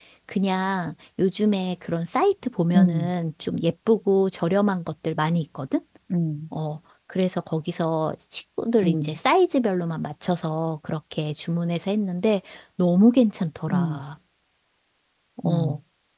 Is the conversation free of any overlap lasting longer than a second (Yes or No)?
Yes